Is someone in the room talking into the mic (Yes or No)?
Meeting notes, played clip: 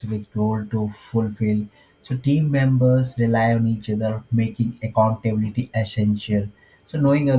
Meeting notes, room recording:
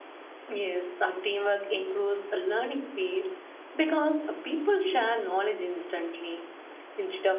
Yes